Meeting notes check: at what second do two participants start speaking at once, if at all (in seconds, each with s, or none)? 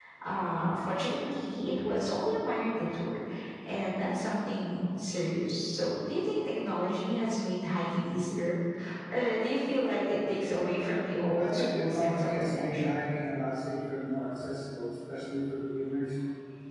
11.4 s